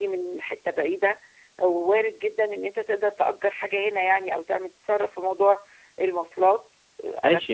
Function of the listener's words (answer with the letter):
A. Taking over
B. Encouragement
A